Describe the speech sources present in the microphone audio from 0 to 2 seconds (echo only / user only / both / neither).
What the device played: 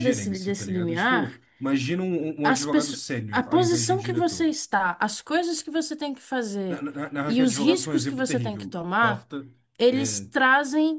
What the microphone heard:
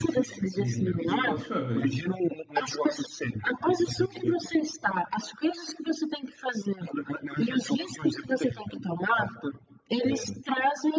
both